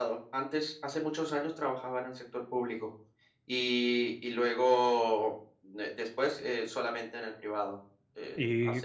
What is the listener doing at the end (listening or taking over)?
taking over